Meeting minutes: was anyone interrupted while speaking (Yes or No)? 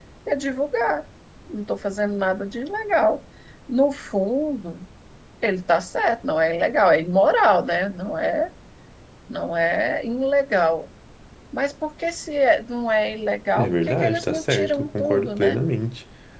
Yes